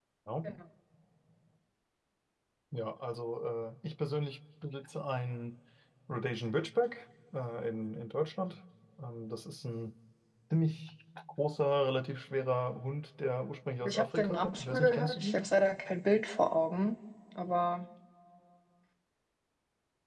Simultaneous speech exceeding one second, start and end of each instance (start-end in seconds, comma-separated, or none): 13.8-15.4